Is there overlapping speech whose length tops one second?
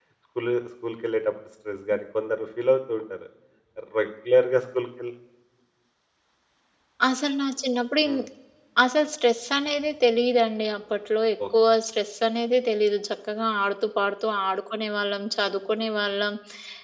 No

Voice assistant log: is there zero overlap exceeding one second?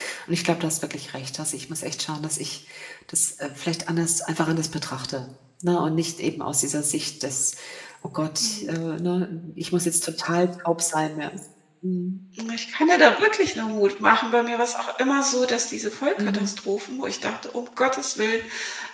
Yes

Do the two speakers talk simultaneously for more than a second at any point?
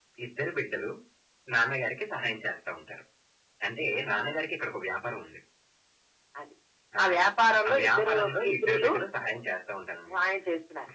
Yes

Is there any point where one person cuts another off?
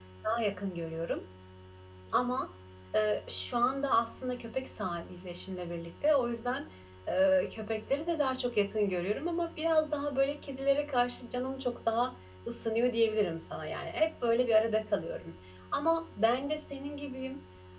No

